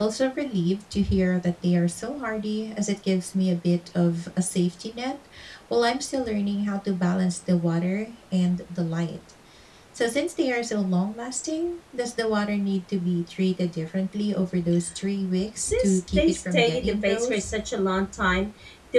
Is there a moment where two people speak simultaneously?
Yes, from 15.6 s

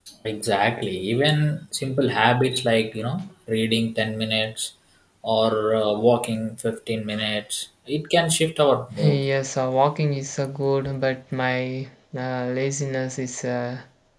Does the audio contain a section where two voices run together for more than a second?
No

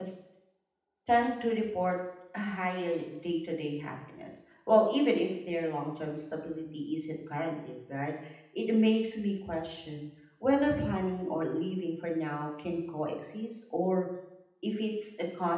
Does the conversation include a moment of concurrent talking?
No

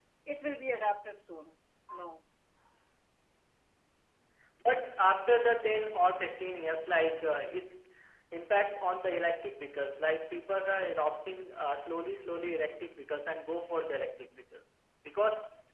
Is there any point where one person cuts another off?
No

